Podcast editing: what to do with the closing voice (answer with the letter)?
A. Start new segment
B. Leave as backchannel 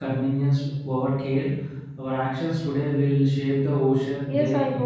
A